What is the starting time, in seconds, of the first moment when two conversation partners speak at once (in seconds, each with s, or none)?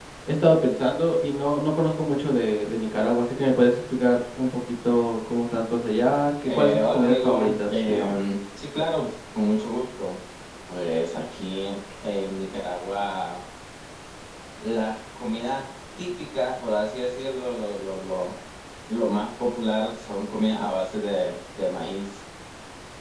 6.5 s